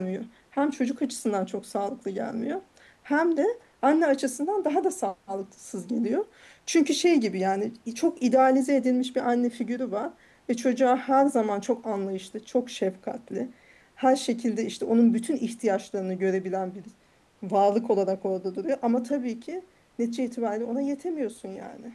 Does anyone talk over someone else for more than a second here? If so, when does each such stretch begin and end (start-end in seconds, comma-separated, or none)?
none